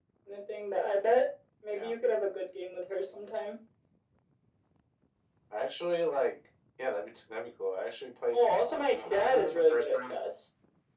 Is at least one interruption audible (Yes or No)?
Yes